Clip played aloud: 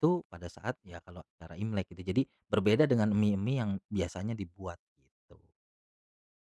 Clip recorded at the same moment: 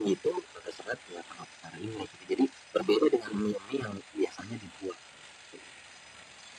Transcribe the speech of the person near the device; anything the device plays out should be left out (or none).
none